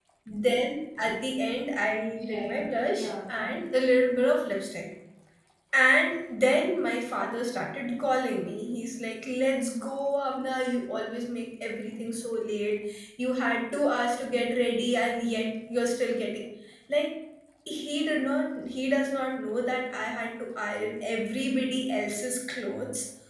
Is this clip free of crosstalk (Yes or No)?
No